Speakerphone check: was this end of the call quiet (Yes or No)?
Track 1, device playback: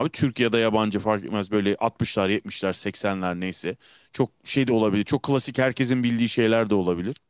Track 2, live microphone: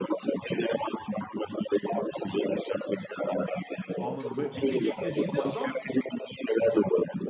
No